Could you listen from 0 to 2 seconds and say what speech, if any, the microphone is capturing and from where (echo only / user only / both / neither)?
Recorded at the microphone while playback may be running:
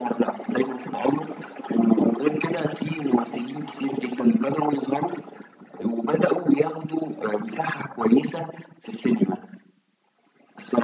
echo only